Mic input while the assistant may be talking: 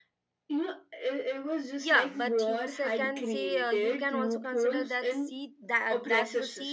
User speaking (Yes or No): Yes